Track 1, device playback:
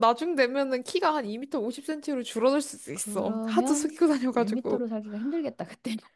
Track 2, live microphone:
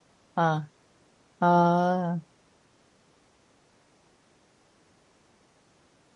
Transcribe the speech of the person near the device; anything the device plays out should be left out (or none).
아, 아,